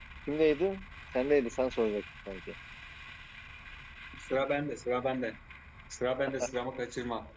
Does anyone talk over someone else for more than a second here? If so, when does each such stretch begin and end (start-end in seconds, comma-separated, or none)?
none